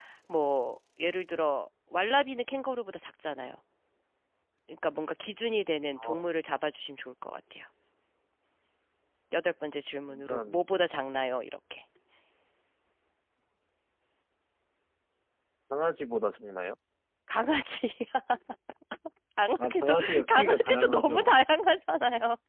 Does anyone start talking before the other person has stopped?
Yes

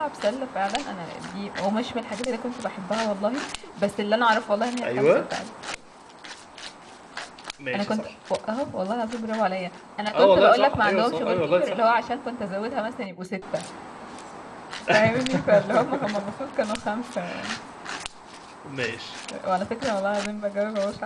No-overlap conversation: No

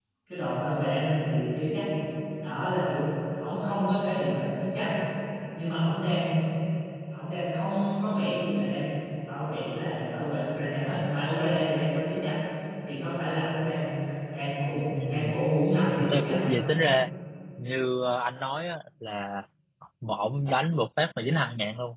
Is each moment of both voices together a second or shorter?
Yes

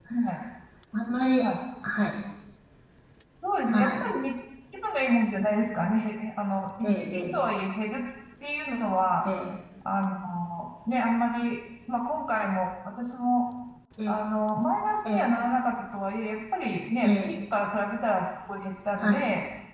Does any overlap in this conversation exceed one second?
No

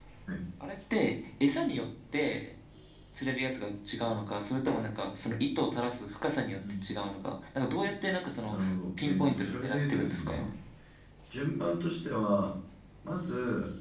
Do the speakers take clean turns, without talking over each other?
No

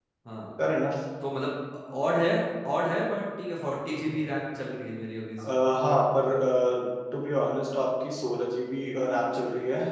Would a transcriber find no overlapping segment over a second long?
Yes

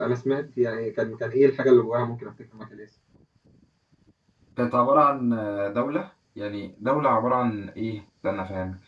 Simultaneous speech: No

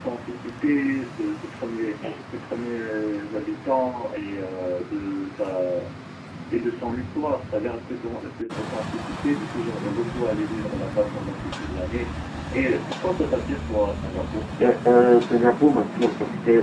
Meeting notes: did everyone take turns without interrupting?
Yes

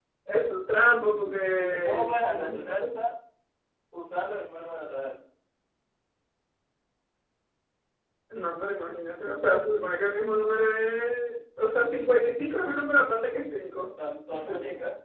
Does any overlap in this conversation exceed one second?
Yes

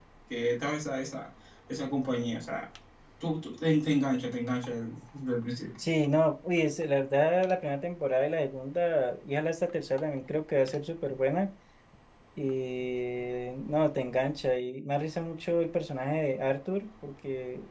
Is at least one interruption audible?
No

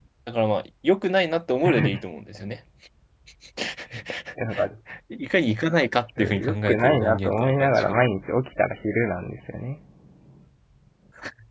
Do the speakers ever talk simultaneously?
Yes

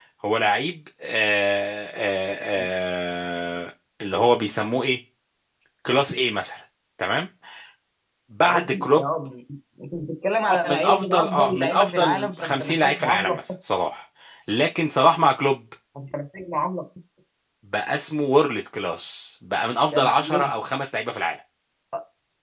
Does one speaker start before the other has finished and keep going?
Yes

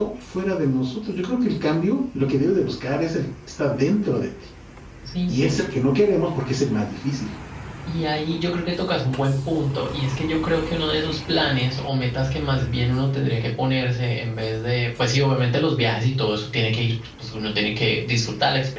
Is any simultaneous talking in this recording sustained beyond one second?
No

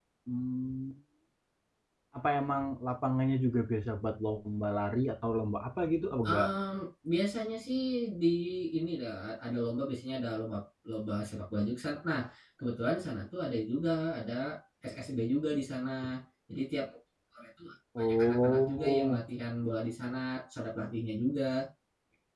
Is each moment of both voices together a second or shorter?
No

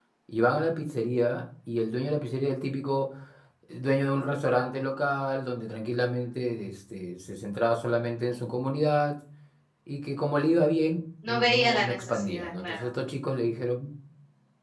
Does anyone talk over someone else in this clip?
Yes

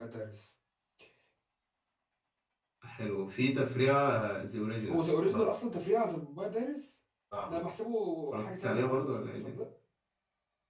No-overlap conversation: No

